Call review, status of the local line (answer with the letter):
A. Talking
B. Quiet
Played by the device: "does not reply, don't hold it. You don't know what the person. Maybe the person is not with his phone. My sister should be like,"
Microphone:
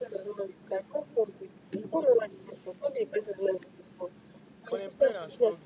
A